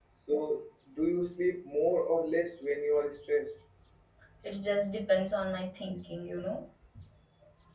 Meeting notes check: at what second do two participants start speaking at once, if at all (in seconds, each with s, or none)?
none